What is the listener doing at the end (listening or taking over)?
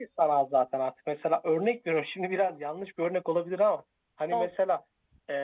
listening